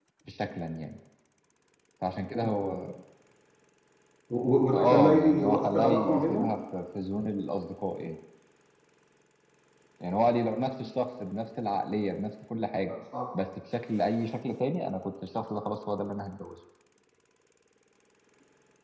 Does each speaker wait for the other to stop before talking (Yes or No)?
No